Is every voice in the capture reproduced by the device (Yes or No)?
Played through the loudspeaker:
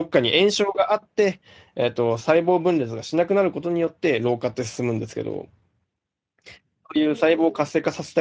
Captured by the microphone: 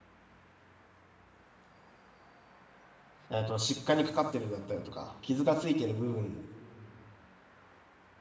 No